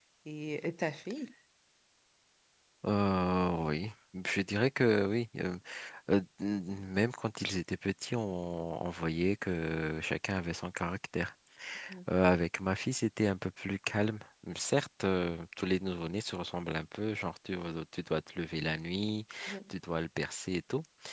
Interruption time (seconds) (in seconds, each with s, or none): none